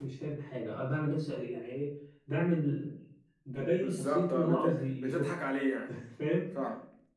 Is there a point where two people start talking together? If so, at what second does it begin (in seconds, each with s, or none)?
3.8 s